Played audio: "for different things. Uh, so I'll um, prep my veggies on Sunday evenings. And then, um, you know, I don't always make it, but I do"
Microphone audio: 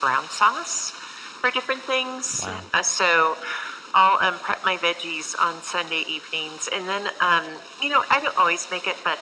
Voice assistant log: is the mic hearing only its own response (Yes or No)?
No